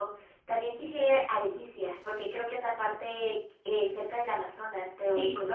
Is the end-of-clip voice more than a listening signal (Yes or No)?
Yes